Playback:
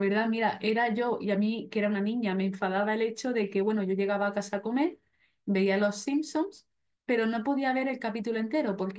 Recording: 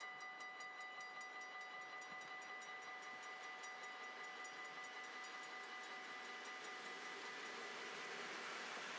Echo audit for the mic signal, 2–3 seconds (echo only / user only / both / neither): neither